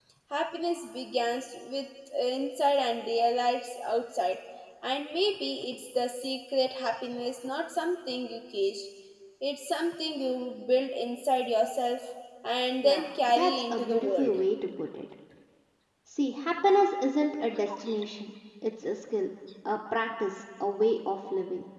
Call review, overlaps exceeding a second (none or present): present